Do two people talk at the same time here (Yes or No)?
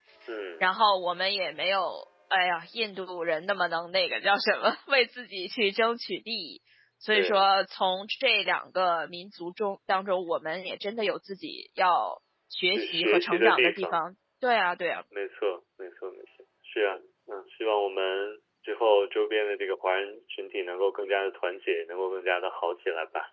Yes